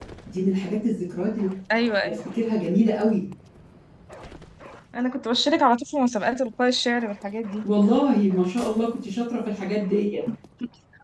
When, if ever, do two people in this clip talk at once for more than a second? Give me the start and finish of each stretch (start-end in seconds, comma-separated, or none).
none